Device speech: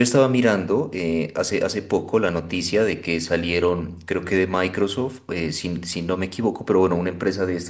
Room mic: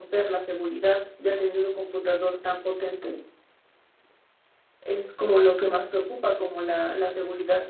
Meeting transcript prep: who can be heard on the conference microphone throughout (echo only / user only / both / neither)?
user only